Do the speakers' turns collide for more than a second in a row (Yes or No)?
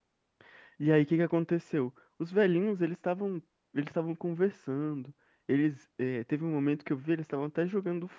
No